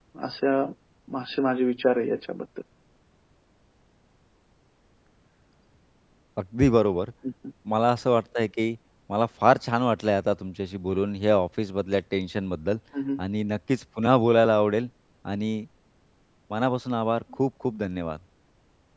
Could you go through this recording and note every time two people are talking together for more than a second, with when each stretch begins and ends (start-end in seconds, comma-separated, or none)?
none